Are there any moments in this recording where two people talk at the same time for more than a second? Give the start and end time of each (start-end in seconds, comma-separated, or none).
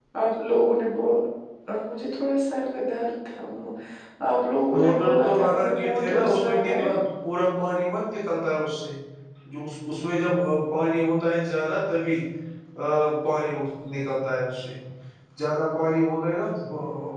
4.8-6.9